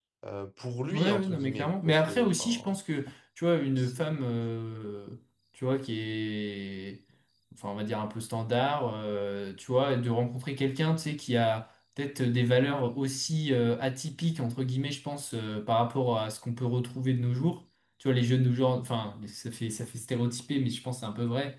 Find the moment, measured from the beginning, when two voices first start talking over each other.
0.9 s

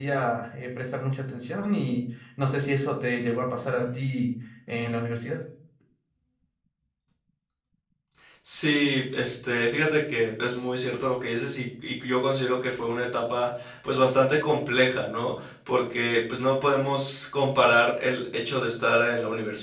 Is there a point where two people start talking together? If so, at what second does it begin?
none

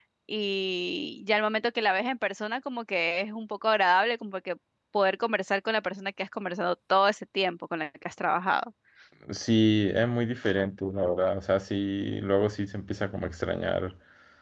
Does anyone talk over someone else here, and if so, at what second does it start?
none

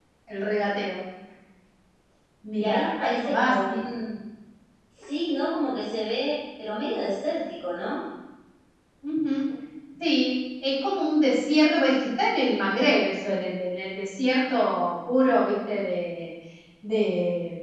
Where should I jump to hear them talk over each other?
2.6 s

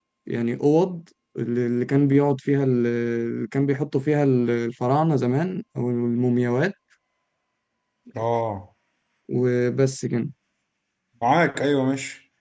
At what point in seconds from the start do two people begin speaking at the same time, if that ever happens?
none

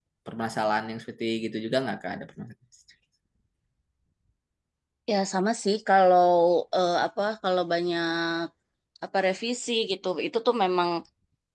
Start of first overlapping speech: none

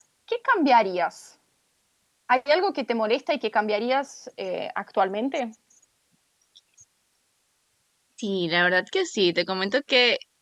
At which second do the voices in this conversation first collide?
none

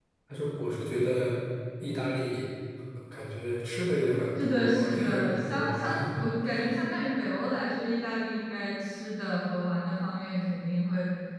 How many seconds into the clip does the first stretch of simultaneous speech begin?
4.4 s

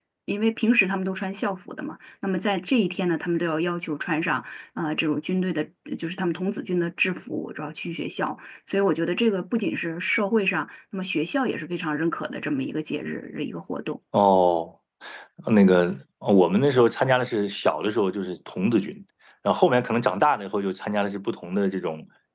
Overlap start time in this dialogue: none

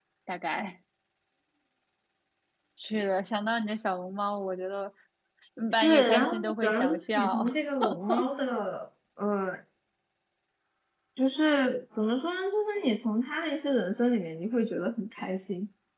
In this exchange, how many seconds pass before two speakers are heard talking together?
5.7 s

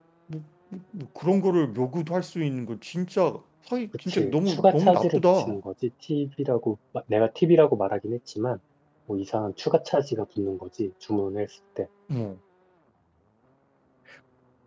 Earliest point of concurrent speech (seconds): 4.1 s

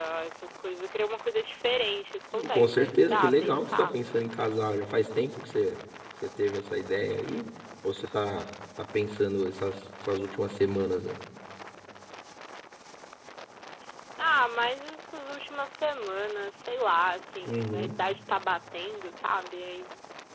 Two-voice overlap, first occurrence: 2.5 s

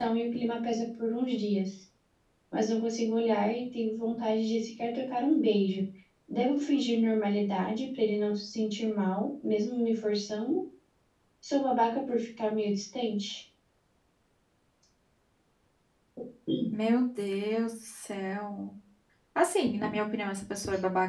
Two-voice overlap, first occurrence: none

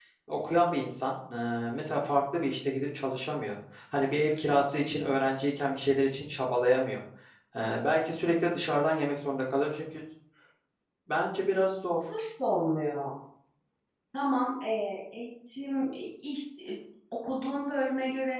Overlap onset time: none

